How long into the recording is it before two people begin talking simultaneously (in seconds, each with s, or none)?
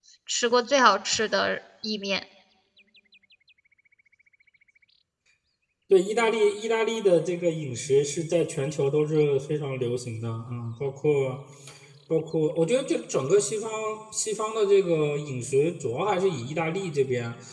none